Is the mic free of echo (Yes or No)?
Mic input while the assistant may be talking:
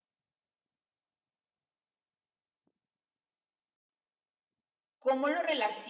Yes